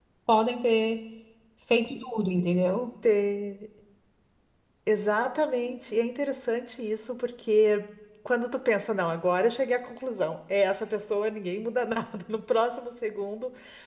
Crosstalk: none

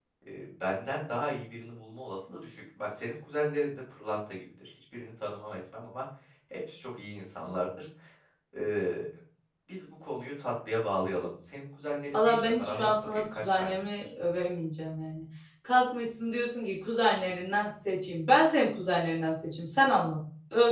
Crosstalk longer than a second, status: present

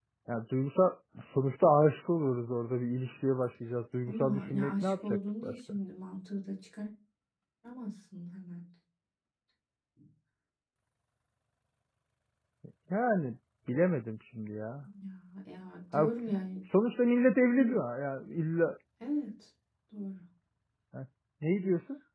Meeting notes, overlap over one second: present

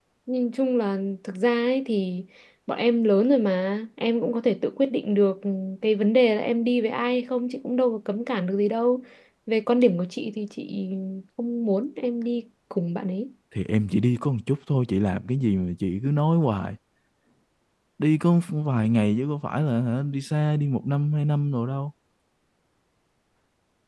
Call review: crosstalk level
none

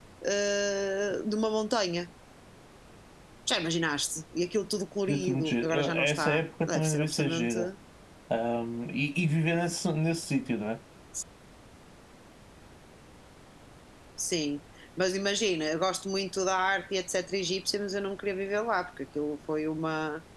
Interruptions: present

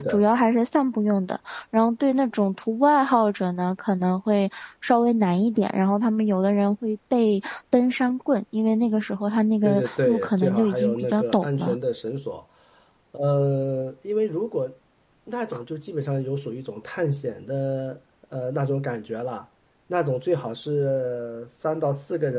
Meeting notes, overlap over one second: present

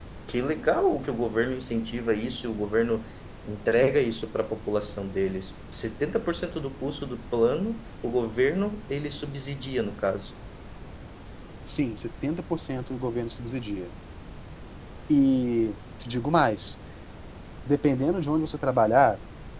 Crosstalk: none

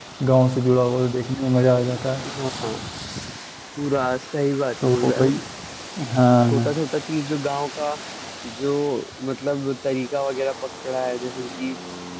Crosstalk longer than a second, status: none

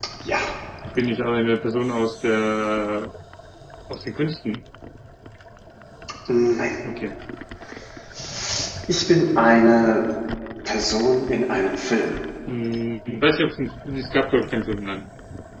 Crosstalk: none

